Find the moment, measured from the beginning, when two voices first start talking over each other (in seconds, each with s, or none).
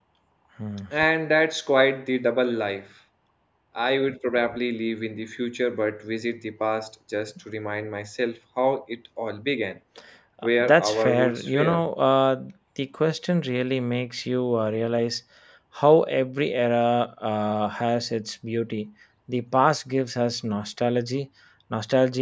10.6 s